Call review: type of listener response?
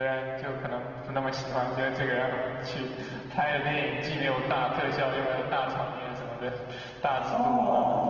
taking over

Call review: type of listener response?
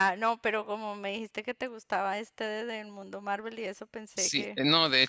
taking over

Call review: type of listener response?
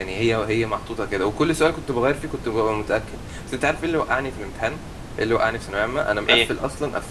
listening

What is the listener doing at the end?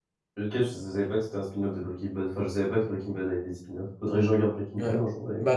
taking over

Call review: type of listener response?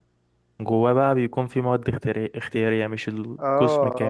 taking over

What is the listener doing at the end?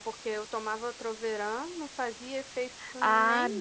taking over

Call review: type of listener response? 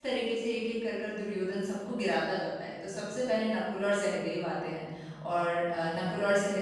listening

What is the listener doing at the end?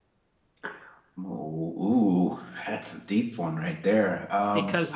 taking over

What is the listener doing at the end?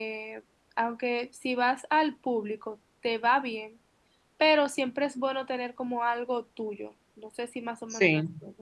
listening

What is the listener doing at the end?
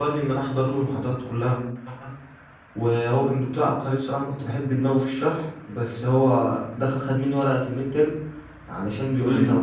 listening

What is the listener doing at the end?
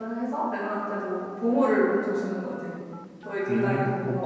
taking over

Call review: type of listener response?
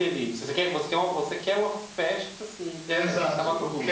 taking over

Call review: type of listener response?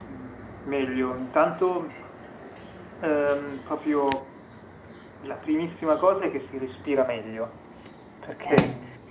listening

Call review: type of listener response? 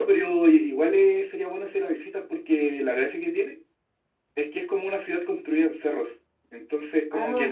listening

